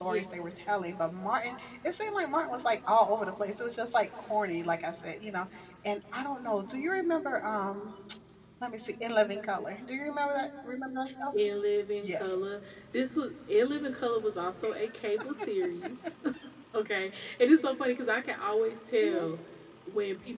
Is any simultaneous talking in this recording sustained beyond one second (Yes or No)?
No